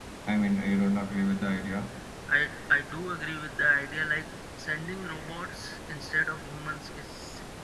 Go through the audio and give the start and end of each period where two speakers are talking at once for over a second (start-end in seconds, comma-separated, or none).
none